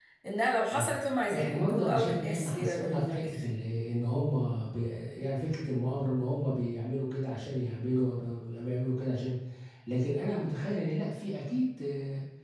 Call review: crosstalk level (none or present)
present